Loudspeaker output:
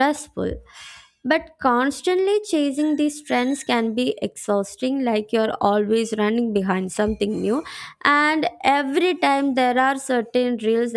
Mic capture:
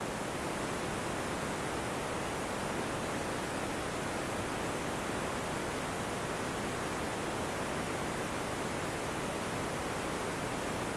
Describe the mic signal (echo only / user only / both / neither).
neither